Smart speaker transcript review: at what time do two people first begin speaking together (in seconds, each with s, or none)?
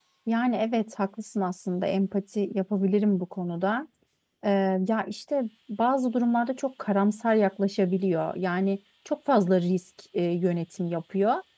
none